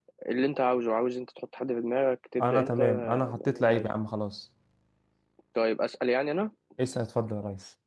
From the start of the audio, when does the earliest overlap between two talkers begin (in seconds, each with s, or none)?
2.4 s